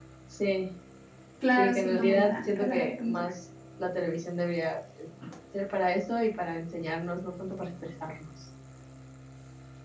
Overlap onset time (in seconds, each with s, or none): 1.6 s